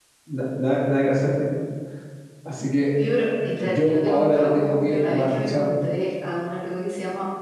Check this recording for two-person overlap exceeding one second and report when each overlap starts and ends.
3.6-5.7

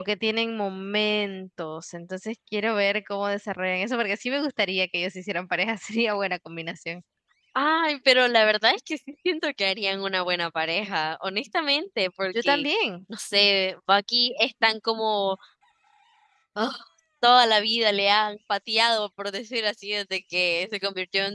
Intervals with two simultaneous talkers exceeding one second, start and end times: none

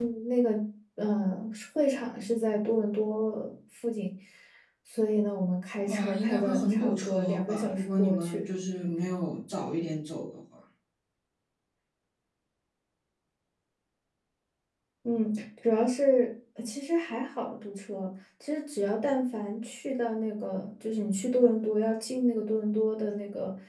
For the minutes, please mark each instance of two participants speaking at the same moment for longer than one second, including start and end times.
5.9-8.5

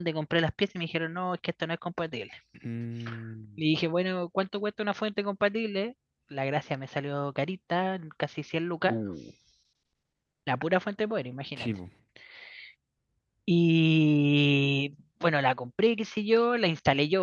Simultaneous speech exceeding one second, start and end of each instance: none

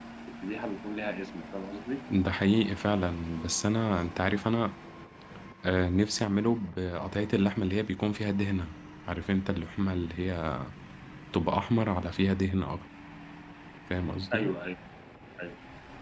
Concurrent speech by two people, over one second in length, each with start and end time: none

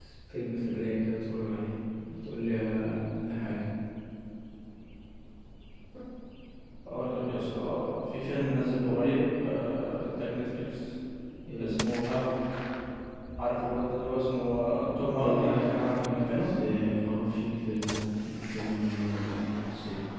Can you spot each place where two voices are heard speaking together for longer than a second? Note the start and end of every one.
15.2-16.5

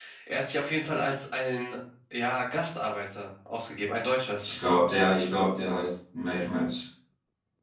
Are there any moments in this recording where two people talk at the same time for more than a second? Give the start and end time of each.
none

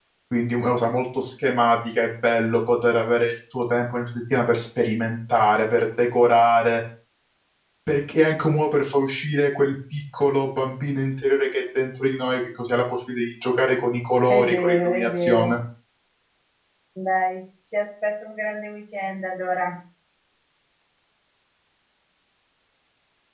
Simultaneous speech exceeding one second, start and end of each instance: 14.3-15.5

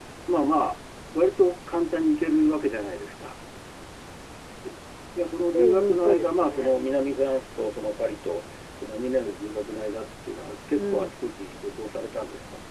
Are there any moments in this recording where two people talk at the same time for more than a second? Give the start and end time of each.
5.5-6.8

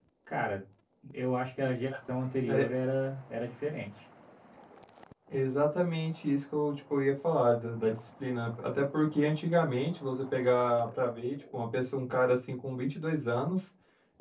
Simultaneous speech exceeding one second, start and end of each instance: none

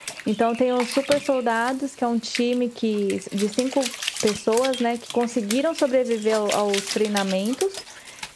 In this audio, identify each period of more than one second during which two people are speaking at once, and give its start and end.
none

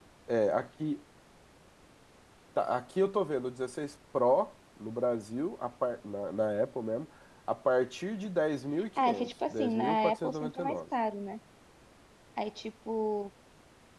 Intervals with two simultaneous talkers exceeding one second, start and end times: 9.0-10.8

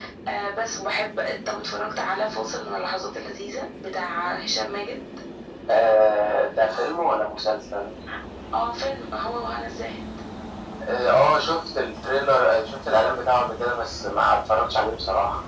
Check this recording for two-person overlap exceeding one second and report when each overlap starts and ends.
none

